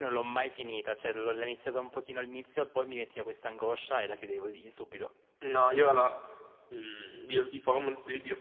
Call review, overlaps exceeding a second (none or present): none